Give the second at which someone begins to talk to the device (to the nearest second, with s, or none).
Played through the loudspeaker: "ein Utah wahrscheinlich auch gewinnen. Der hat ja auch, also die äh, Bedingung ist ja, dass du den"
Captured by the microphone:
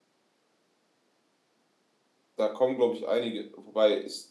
2 s